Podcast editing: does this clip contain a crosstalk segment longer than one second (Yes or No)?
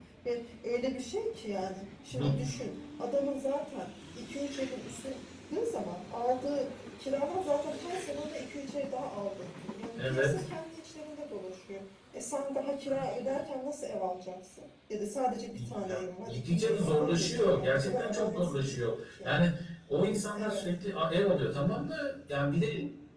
Yes